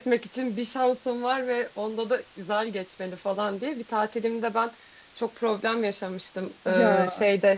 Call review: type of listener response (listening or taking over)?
listening